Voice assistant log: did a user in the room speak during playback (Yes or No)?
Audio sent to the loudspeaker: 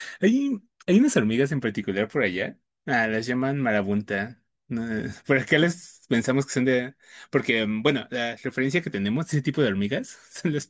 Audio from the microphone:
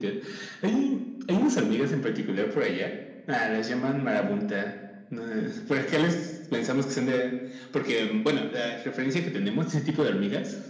No